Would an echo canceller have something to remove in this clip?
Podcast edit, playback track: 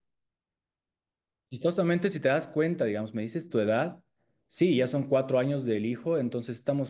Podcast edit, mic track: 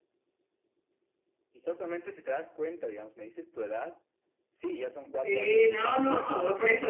Yes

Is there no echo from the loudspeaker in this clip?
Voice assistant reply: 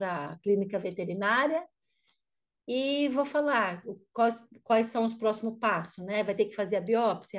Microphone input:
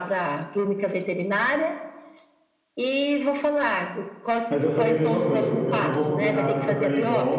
No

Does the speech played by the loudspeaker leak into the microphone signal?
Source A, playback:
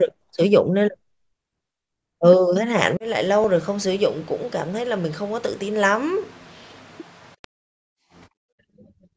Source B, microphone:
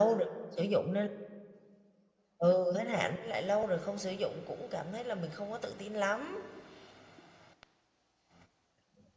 Yes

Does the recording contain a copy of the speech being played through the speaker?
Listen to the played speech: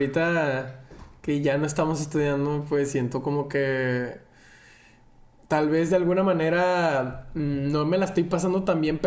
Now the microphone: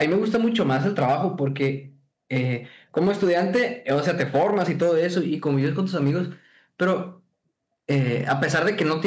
No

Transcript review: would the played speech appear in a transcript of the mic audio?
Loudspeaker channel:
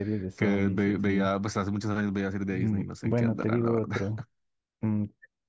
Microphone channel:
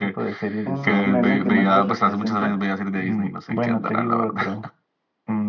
Yes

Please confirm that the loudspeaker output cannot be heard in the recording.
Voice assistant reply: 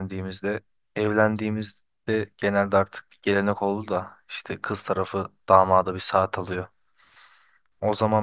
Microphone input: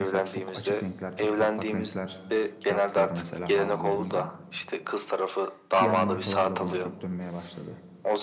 No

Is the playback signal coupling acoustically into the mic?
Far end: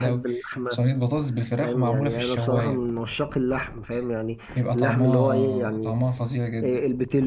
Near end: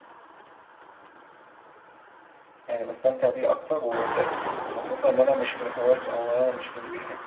No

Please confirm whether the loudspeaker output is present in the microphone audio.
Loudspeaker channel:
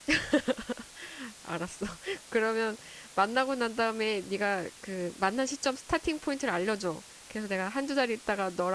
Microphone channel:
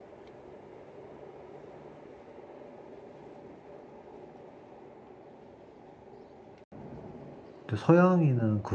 No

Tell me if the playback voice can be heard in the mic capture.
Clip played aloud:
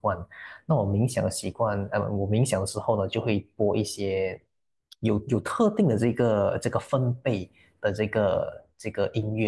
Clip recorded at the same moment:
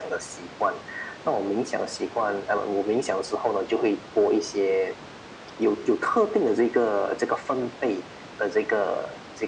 Yes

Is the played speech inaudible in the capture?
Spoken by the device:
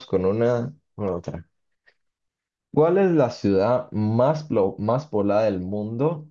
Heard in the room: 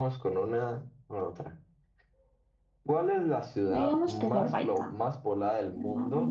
No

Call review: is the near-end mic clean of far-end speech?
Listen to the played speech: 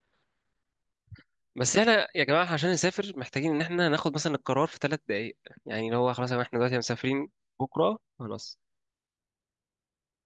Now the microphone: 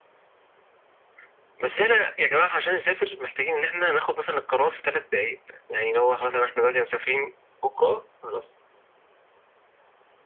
No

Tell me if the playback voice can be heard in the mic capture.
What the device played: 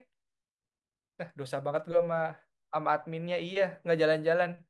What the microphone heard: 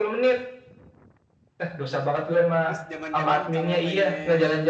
Yes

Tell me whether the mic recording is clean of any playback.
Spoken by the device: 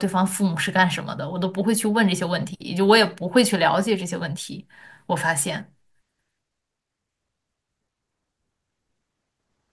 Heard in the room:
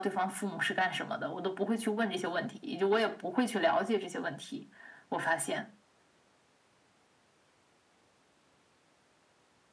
No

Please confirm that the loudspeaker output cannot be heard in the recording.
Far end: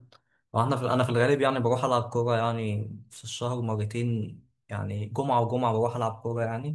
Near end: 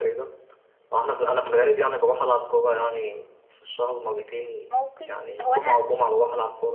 No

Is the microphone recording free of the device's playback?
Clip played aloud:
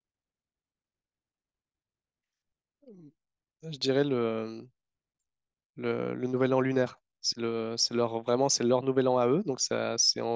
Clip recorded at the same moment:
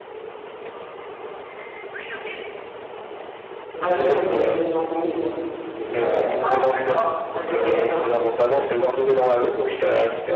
No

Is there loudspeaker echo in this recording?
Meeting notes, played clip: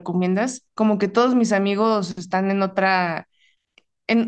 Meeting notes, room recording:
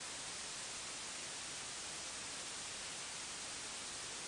No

